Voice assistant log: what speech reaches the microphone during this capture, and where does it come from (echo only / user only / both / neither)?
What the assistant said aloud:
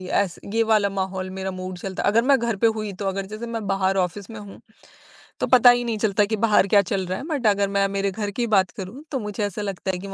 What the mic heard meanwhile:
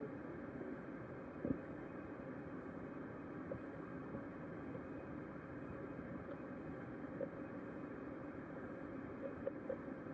neither